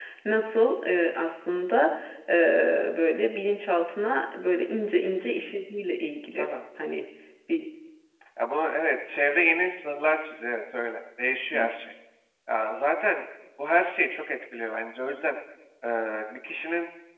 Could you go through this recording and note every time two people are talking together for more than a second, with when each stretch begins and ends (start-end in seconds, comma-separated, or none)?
none